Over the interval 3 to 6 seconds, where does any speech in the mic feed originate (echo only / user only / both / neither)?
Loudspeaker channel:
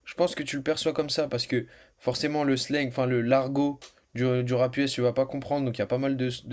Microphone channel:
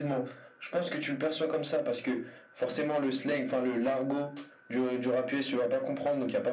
echo only